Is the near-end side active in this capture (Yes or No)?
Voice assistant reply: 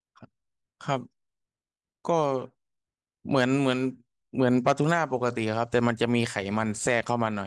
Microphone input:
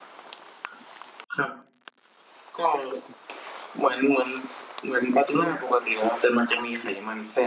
No